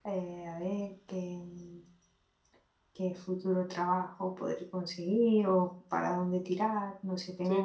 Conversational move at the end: taking over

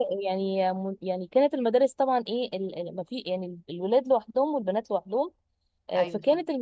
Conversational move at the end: listening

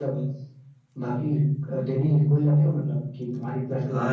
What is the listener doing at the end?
taking over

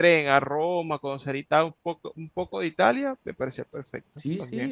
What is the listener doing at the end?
taking over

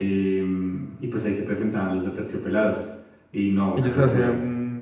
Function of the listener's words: taking over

